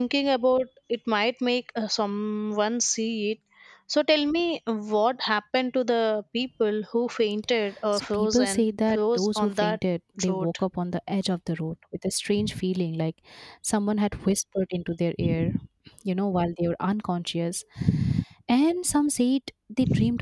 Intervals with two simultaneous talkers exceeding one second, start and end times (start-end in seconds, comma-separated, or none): 7.9-9.8